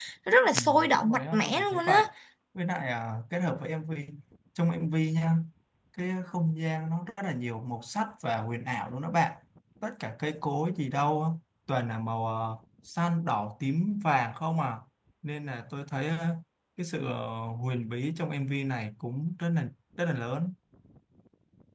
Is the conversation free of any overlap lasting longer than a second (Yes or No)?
No